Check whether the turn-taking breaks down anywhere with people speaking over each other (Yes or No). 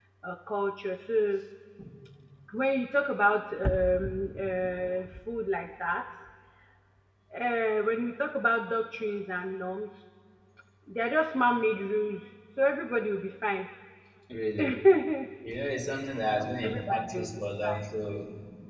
Yes